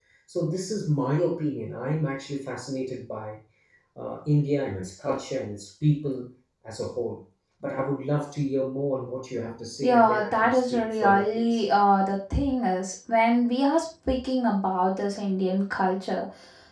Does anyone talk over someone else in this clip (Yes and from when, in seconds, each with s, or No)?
Yes, from 9.8 s